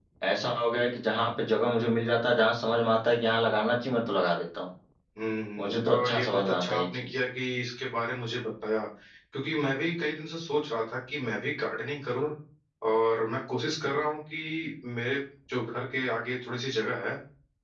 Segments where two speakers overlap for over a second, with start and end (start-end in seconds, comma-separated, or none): 5.6-7.2